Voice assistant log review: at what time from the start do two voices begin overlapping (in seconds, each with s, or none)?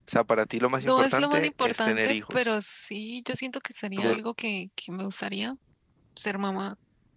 0.8 s